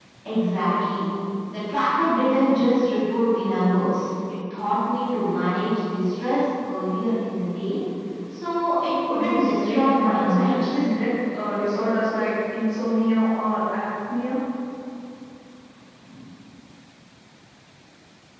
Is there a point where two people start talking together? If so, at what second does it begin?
9.1 s

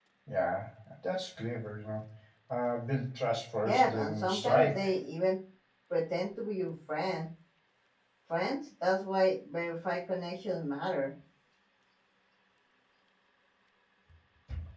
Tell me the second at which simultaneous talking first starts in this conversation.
3.6 s

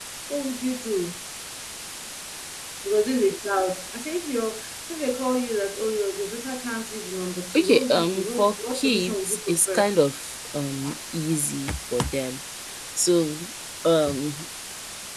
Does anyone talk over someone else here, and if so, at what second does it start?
7.5 s

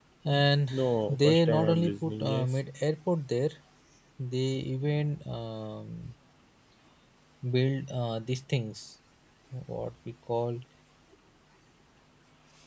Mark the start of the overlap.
1.1 s

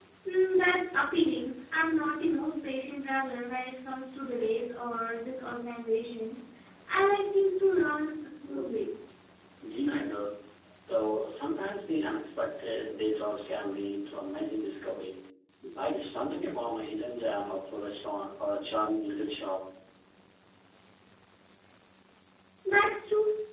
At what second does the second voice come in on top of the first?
none

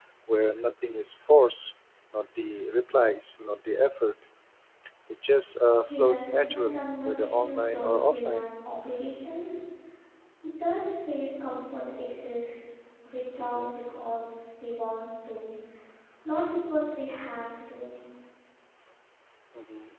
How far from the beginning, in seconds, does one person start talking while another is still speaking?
5.8 s

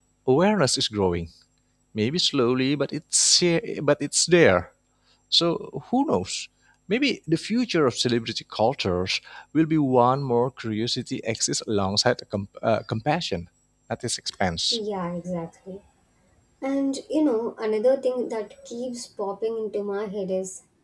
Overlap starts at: none

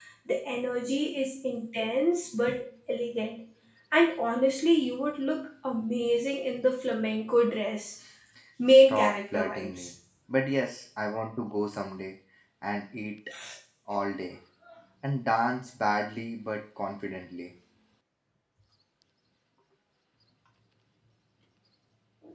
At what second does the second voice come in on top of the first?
8.7 s

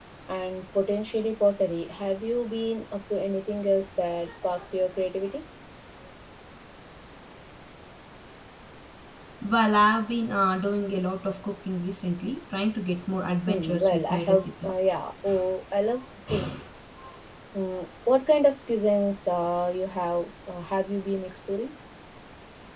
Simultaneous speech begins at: 13.4 s

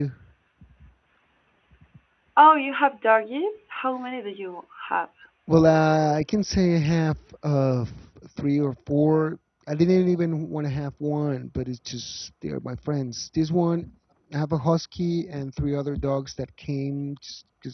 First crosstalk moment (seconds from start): none

